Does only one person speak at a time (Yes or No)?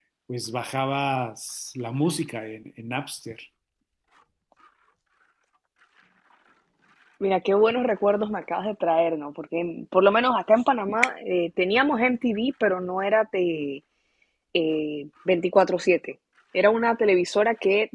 Yes